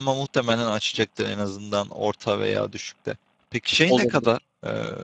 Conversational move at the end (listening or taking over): listening